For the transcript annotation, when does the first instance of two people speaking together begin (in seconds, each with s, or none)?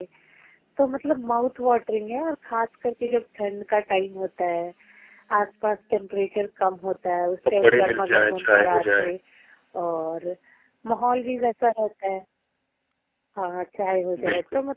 7.6 s